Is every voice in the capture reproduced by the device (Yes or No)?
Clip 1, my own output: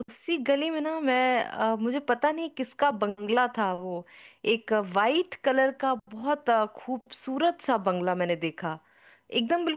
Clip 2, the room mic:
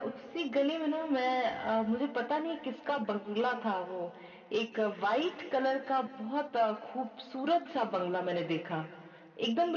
Yes